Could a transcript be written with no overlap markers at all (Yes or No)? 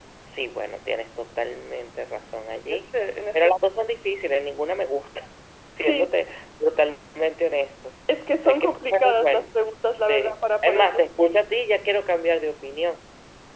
No